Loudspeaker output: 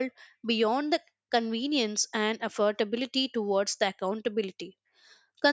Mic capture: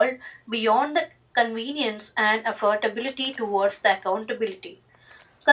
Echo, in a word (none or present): present